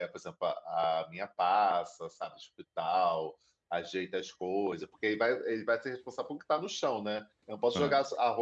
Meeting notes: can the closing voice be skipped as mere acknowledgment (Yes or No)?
Yes